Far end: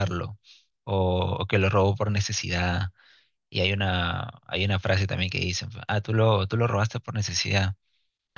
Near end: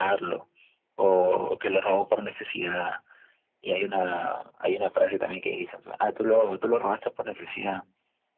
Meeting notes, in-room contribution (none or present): none